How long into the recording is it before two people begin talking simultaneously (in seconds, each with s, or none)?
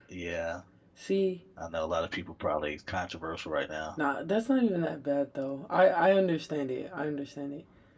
none